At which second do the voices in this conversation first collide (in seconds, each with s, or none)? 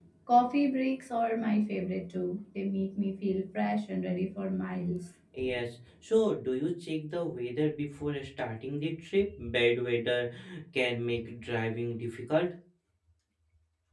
none